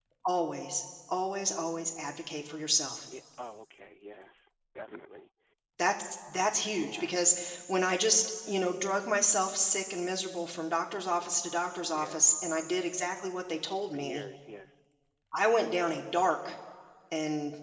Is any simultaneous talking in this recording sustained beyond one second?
No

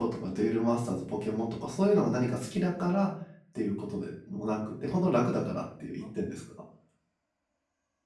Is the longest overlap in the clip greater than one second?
No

